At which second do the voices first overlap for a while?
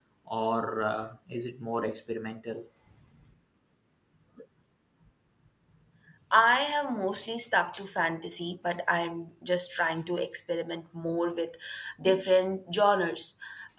none

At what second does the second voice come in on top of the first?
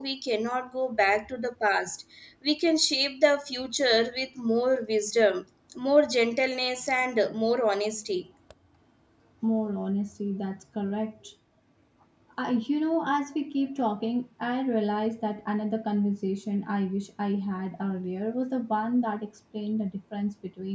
none

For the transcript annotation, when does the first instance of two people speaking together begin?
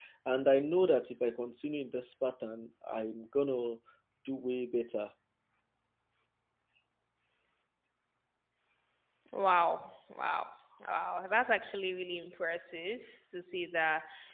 none

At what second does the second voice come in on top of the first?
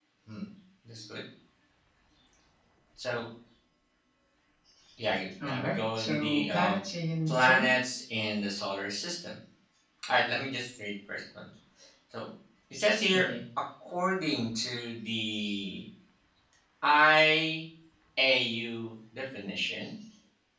5.4 s

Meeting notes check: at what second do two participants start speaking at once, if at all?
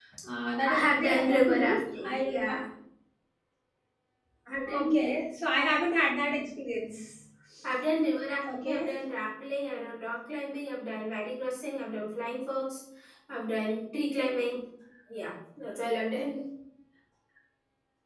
0.7 s

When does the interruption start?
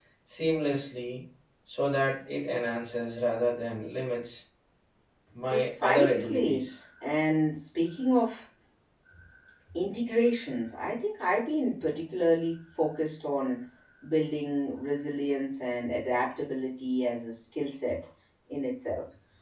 5.4 s

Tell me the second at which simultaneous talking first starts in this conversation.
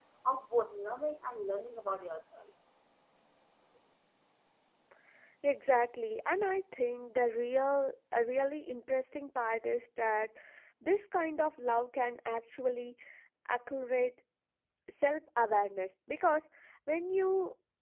none

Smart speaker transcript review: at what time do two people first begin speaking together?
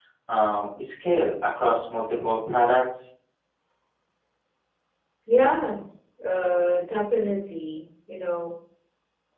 none

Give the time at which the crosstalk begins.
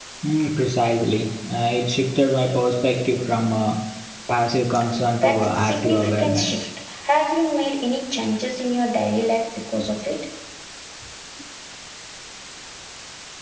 5.2 s

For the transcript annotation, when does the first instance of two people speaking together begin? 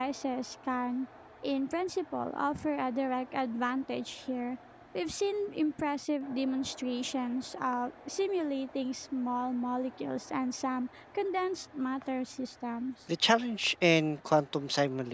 none

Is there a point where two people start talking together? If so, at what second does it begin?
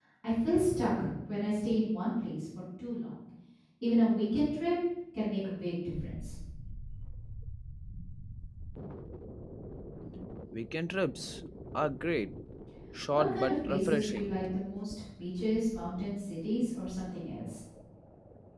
13.1 s

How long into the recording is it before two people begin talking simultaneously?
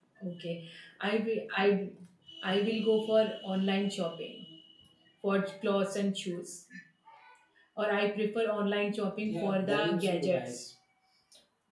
9.2 s

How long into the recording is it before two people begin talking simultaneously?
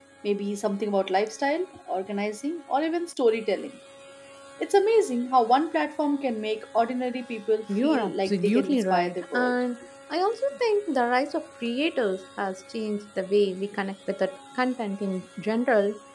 7.7 s

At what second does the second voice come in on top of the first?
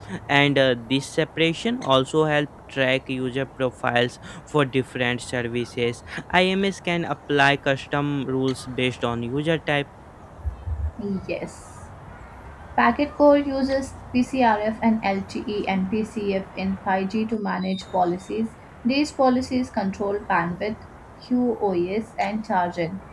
none

